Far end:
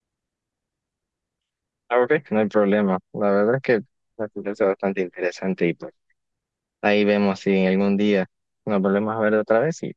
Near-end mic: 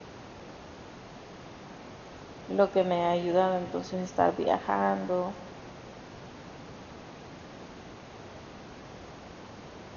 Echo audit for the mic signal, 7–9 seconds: neither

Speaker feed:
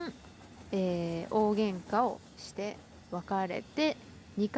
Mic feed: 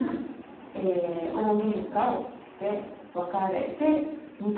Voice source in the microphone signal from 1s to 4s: echo only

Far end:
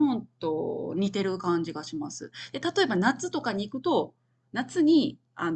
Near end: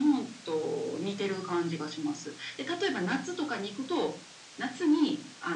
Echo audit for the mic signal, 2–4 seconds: echo only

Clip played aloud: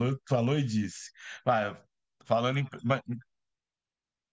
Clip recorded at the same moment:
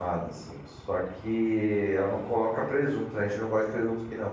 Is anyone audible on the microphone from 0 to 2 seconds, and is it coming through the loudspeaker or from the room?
user only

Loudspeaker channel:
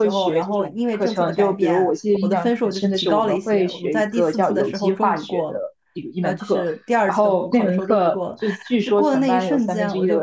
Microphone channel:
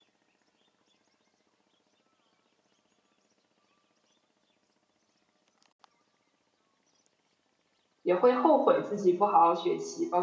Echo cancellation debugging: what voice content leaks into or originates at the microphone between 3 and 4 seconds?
neither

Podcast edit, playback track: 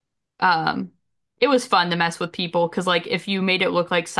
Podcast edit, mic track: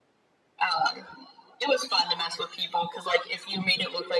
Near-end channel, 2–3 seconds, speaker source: echo only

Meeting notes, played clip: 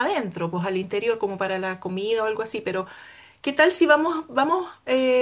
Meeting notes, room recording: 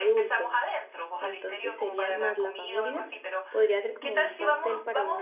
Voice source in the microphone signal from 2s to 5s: both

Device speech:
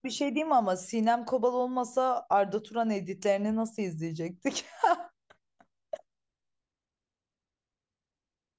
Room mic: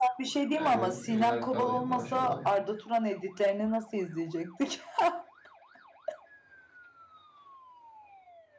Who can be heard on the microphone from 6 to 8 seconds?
neither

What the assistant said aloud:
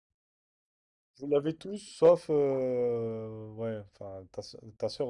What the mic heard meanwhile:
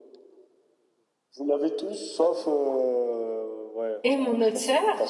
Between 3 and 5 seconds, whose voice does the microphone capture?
both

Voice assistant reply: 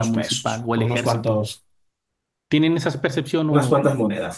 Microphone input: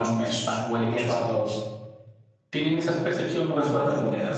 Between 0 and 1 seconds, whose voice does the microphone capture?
echo only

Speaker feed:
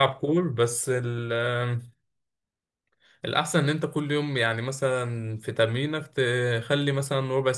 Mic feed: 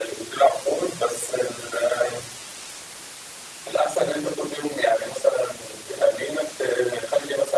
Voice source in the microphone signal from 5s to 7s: echo only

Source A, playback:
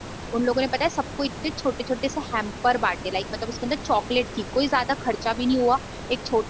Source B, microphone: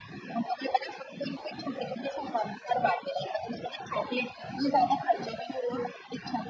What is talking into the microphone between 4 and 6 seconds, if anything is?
echo only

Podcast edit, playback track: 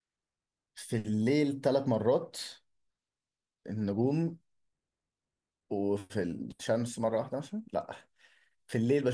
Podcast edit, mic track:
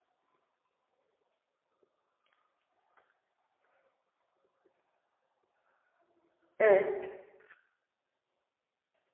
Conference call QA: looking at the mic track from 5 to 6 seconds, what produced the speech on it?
neither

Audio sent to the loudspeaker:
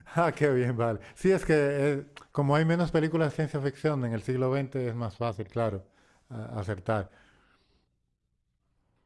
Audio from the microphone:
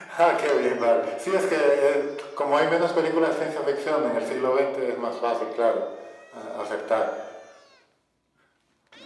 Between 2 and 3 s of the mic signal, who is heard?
echo only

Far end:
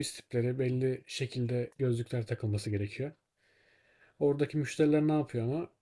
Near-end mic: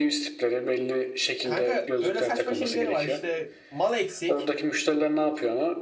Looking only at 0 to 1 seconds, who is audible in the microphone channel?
echo only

